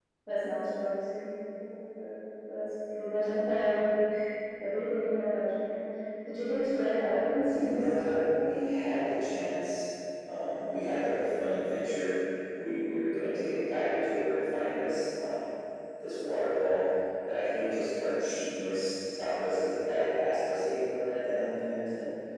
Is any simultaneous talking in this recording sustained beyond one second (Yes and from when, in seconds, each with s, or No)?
Yes, from 7.5 s